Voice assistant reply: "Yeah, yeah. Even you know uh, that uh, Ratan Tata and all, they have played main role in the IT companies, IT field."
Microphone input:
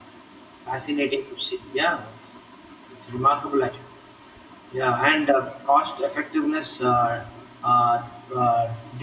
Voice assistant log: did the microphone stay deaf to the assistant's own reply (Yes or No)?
Yes